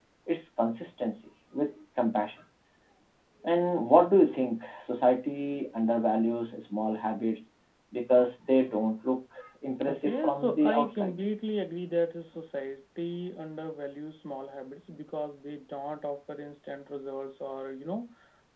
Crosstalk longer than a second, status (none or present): present